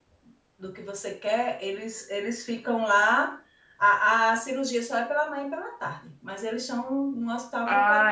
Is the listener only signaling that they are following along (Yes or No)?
No